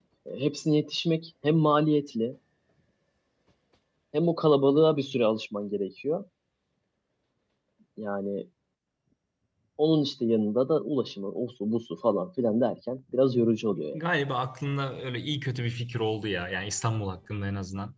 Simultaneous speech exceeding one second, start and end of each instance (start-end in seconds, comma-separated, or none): none